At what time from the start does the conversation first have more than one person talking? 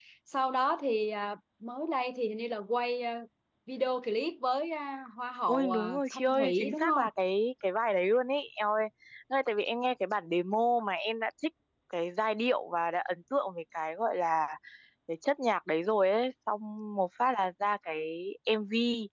5.5 s

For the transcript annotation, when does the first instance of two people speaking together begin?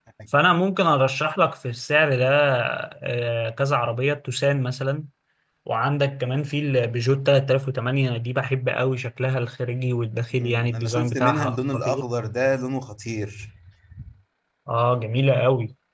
10.4 s

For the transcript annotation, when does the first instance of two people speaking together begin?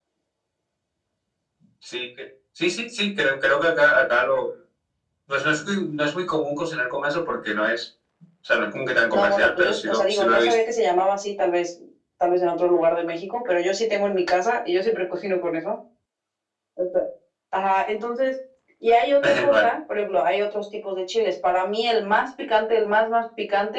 9.1 s

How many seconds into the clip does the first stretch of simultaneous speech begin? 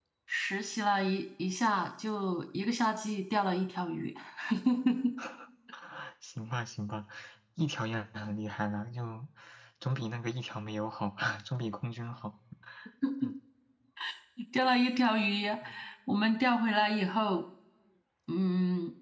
none

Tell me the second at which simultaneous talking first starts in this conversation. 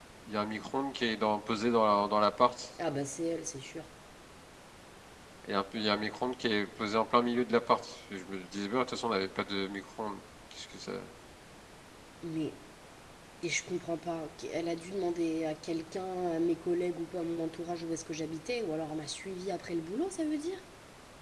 none

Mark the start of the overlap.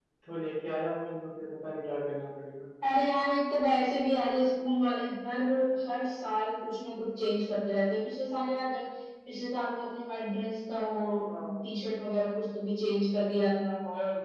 none

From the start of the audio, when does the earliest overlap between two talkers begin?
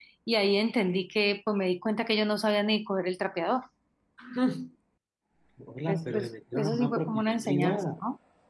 5.9 s

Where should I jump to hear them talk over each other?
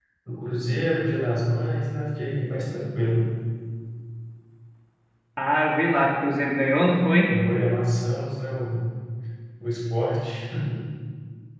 none

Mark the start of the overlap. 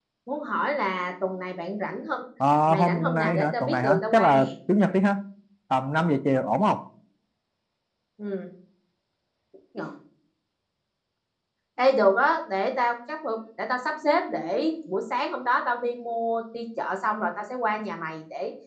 2.7 s

